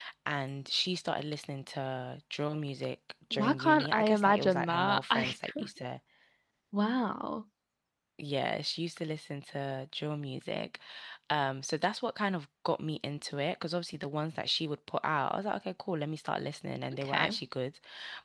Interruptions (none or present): present